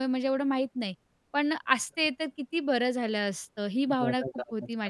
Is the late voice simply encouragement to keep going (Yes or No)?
No